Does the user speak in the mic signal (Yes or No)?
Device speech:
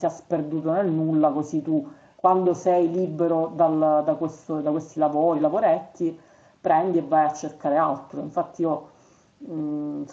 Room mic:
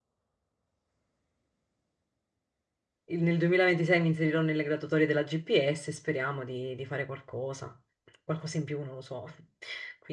Yes